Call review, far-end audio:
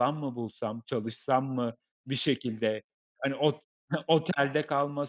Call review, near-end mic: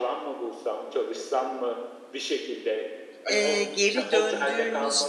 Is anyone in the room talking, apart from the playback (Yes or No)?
Yes